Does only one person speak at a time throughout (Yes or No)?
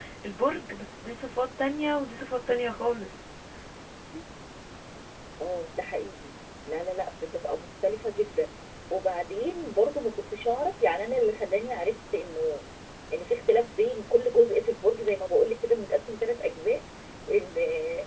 Yes